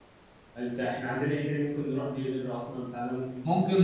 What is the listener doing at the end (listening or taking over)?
taking over